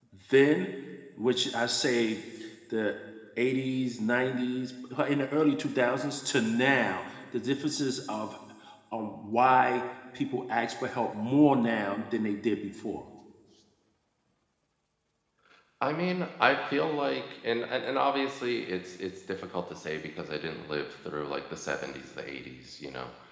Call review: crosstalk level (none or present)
none